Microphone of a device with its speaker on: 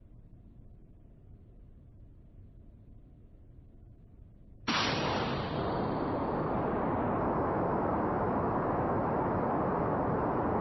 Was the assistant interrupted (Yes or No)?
No